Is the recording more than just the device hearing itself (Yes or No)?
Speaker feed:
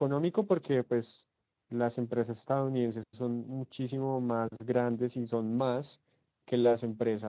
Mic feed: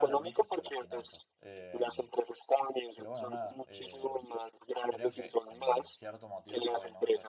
Yes